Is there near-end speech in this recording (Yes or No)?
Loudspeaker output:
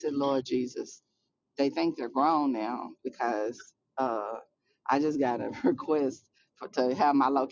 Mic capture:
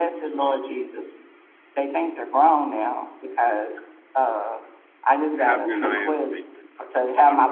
Yes